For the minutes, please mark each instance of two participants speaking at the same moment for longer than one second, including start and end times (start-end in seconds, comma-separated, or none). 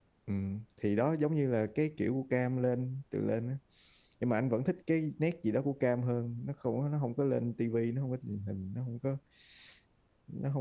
none